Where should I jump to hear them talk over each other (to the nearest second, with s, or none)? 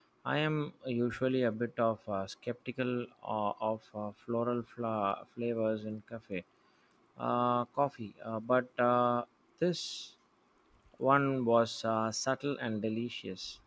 none